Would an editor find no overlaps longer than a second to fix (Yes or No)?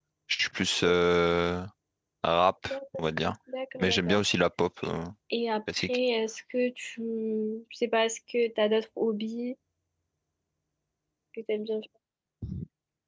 Yes